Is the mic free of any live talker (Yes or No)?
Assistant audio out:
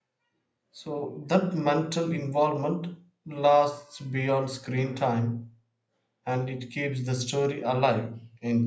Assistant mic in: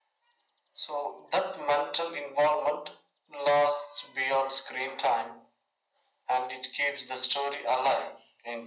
Yes